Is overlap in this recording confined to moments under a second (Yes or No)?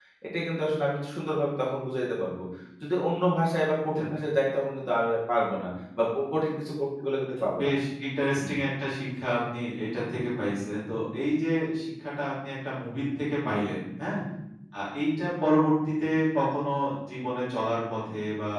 Yes